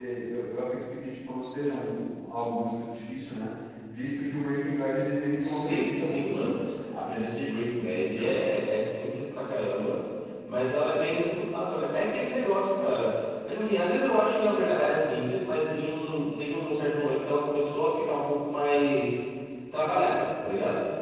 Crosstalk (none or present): present